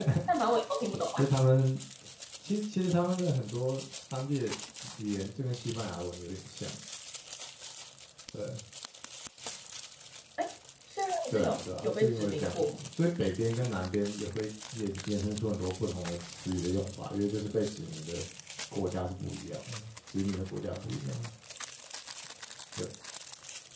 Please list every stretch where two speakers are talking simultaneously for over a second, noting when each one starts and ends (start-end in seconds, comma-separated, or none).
11.3-12.8